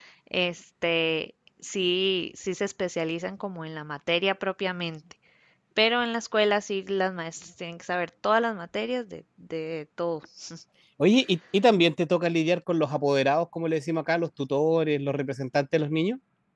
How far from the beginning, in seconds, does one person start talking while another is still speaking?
none

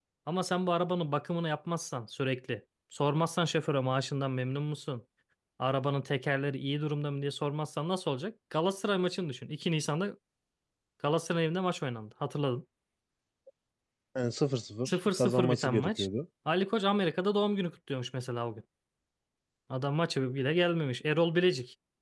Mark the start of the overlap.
14.8 s

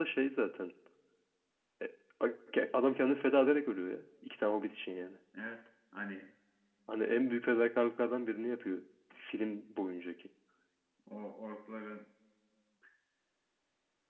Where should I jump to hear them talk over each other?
none

